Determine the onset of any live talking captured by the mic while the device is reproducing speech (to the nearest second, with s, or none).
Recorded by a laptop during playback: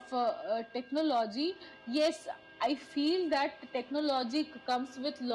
none